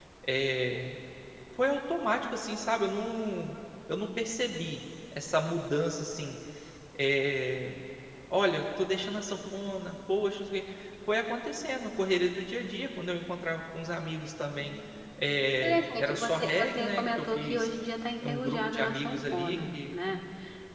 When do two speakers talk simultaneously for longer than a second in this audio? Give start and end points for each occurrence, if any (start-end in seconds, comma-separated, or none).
15.6-17.7, 18.3-19.9